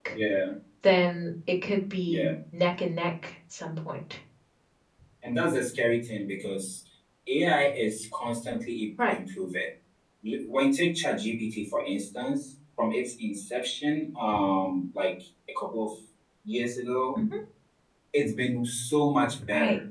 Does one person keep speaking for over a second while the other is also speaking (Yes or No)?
No